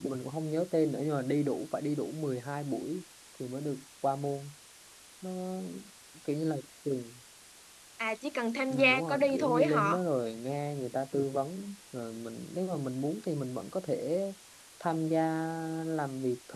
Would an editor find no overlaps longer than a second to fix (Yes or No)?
No